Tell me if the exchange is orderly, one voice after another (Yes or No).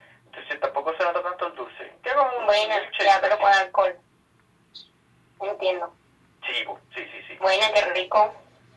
No